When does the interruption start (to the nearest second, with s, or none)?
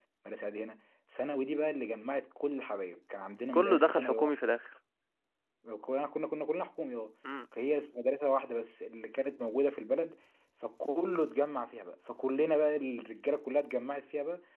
4 s